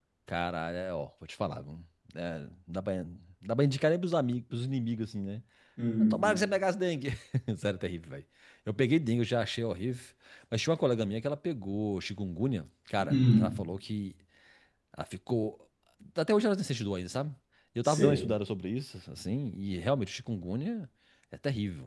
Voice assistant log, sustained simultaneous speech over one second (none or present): none